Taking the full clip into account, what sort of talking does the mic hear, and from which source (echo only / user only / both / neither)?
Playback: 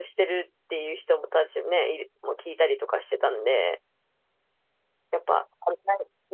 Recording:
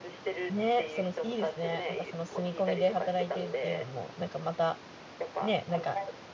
both